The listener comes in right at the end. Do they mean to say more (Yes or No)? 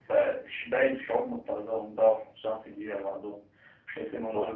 No